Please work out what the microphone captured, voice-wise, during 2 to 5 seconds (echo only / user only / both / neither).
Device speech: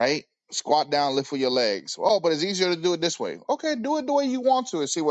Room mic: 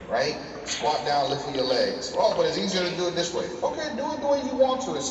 echo only